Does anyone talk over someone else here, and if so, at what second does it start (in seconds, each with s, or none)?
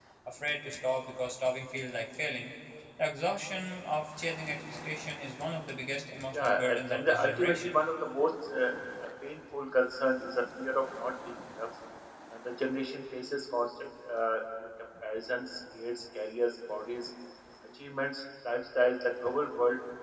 6.3 s